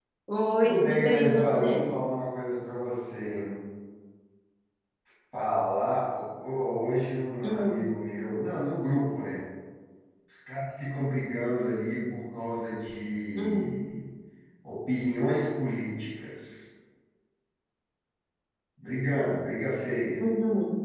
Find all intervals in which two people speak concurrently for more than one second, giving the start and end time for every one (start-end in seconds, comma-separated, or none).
0.6-1.9